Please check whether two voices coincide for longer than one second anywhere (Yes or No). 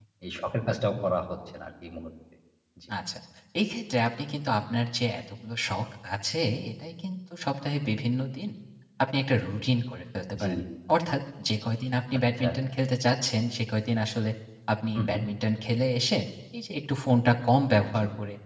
No